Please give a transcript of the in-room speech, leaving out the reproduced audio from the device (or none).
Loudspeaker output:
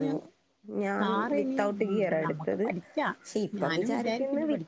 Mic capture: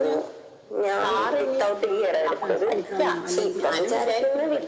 ആ സ്കൂട്ടറാണോ അല്ലെങ്കിൽ